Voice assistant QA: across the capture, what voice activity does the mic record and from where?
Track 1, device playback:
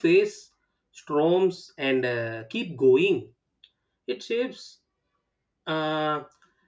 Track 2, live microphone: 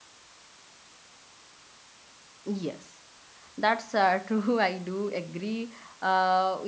user only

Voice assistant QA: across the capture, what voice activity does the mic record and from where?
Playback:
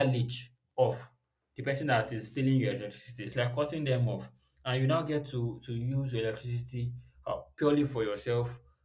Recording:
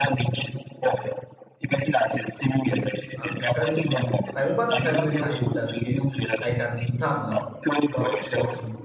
both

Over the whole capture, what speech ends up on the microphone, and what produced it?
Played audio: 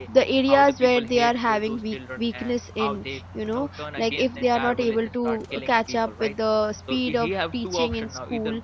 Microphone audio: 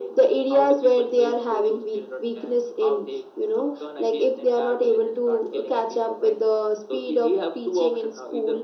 echo only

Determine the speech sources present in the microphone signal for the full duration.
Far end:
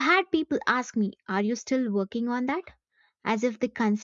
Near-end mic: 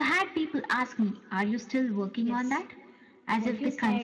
both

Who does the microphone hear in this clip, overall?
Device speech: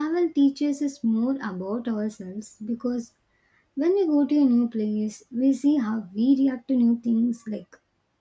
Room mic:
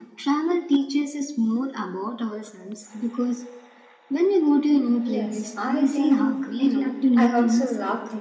both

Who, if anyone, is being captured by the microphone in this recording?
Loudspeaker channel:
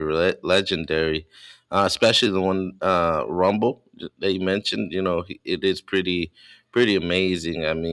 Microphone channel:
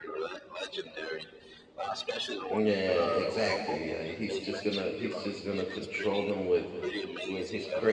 both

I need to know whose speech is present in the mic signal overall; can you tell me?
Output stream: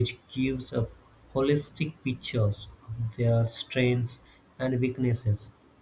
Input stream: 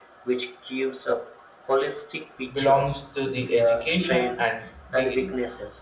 both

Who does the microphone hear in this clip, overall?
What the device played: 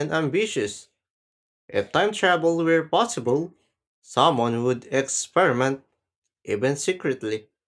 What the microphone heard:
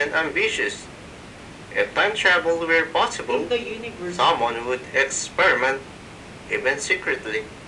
both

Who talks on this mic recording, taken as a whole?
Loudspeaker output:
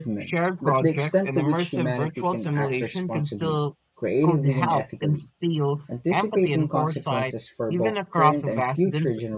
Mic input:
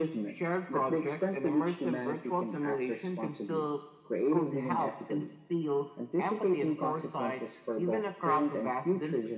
echo only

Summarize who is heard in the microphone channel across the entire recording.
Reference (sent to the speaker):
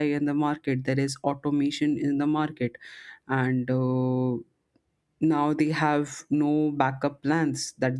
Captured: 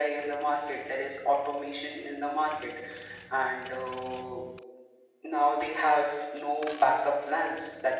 echo only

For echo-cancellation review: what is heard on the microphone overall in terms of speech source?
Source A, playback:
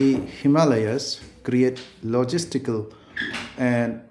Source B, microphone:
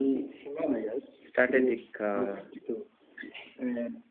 both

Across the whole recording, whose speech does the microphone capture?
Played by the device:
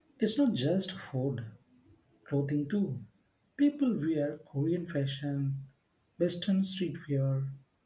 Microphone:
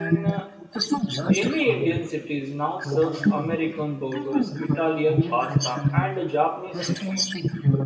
both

